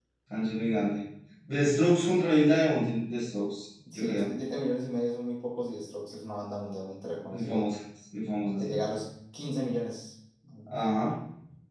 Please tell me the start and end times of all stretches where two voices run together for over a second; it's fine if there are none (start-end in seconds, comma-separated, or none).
none